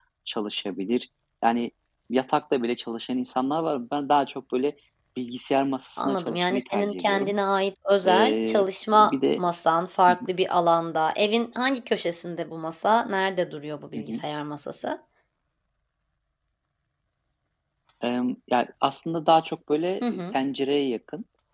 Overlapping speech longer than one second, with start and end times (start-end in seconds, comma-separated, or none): 6.0-7.3, 8.1-9.4